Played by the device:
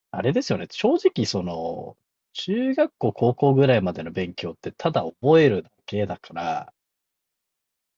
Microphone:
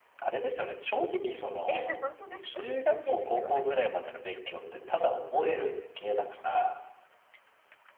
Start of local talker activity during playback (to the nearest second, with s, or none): 2 s